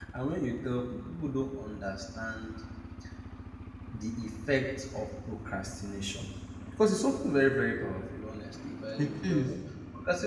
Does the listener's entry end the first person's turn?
No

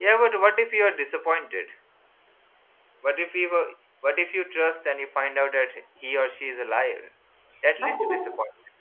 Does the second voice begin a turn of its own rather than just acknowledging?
Yes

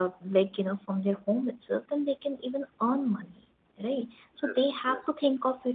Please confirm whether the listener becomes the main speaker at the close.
No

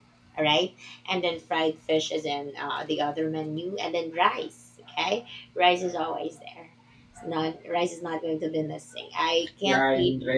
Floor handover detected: Yes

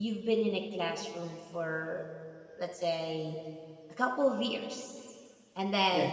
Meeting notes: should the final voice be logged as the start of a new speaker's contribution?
No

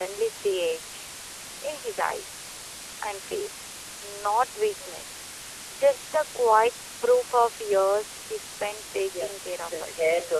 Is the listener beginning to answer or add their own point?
Yes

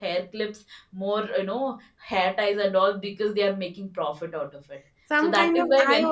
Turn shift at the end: Yes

